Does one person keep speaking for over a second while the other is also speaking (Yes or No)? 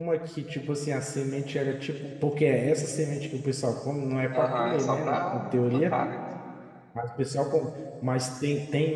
Yes